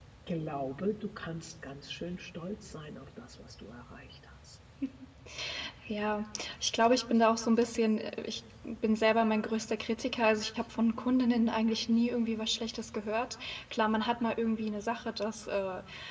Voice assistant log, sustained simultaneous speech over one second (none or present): none